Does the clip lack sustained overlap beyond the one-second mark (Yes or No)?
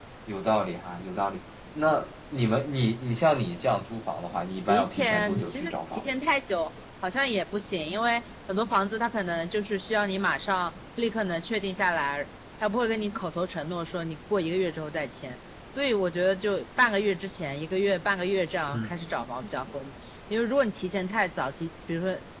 No